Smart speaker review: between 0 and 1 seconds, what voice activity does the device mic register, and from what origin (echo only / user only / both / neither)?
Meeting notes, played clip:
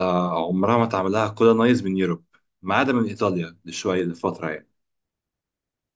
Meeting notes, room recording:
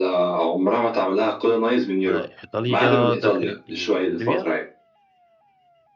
echo only